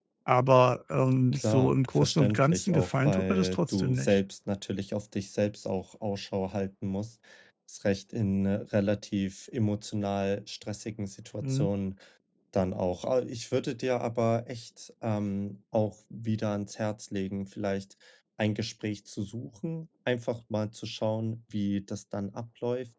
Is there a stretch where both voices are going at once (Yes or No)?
Yes